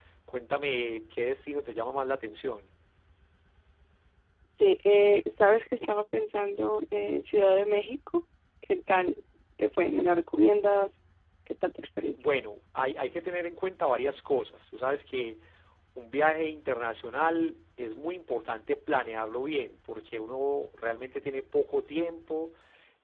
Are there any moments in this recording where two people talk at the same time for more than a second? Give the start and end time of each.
none

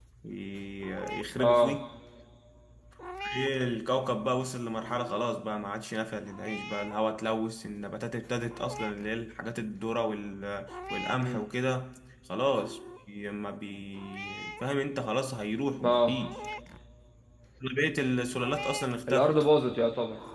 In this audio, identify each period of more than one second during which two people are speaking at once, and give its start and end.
none

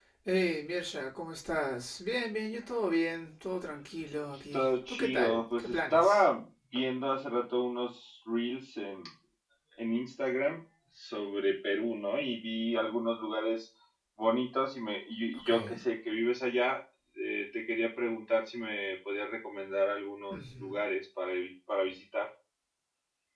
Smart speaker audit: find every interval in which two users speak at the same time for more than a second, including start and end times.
4.5-6.2

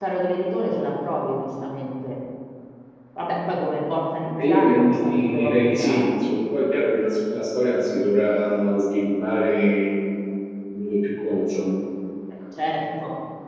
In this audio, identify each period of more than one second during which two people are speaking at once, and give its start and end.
4.5-6.0

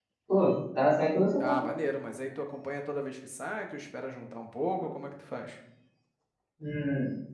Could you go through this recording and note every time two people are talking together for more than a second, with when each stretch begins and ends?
none

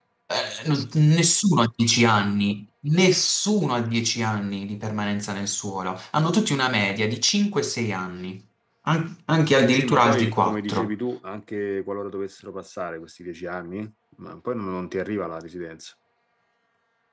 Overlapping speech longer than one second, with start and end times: 9.7-10.9

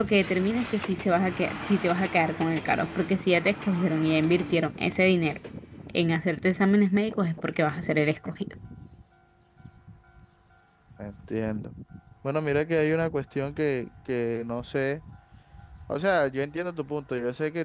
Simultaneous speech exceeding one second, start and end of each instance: none

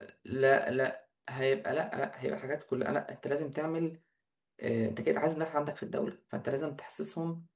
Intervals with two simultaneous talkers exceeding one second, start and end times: none

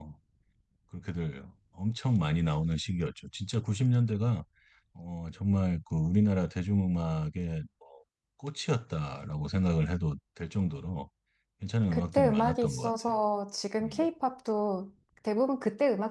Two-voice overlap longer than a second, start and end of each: 11.9-13.2

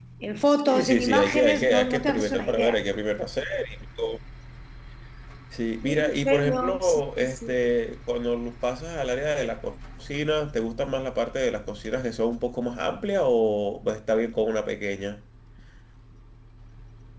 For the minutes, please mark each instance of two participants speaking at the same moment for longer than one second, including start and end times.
0.7-2.8, 5.8-7.5

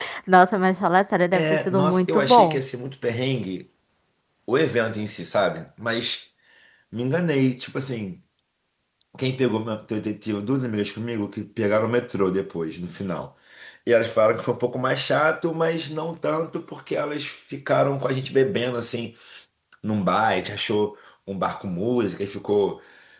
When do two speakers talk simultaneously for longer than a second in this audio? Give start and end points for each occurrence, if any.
1.3-2.6

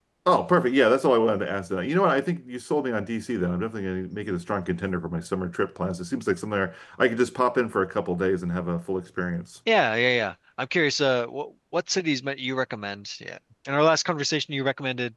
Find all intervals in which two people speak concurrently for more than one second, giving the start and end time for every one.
none

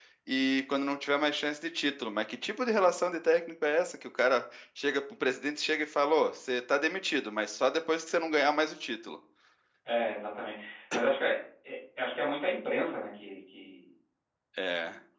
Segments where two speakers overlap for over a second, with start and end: none

